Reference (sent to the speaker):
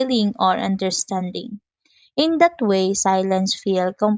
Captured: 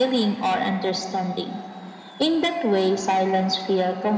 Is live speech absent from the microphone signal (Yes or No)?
Yes